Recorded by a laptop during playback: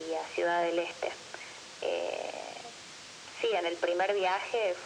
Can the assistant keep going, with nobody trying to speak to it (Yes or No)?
Yes